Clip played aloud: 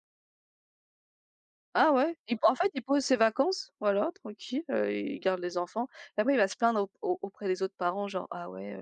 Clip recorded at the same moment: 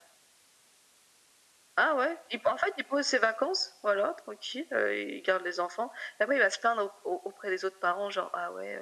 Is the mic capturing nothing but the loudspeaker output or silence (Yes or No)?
Yes